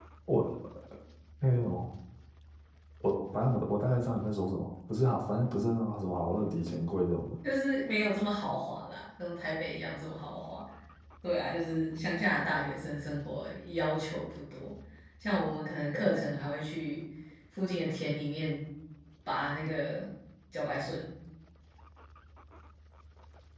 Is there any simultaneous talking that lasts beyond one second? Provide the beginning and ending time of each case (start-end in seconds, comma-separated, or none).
none